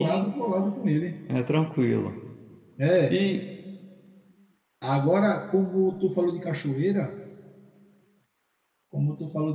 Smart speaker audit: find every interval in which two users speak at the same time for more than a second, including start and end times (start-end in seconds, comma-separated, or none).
none